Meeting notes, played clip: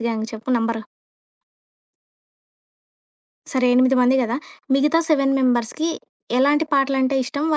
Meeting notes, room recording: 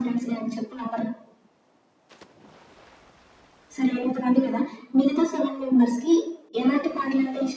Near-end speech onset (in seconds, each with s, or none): none